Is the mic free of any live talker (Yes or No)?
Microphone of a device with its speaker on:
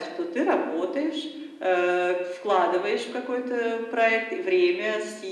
Yes